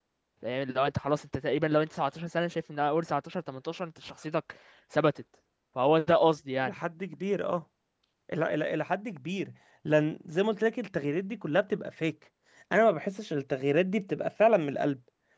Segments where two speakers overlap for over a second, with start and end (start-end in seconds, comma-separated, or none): none